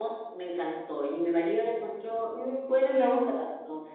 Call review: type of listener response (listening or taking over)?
listening